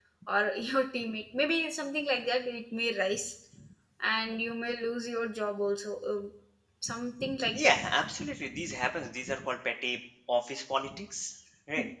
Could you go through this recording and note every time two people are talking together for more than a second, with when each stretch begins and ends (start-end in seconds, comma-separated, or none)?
none